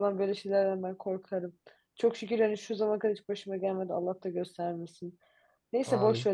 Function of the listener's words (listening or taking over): listening